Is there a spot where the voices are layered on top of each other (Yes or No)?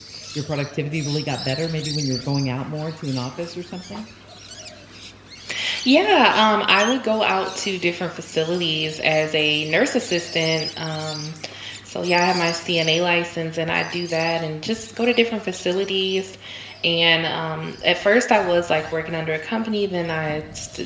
No